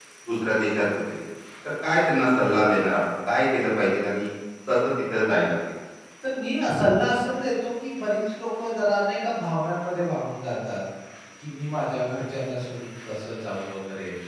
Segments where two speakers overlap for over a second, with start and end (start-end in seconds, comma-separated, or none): none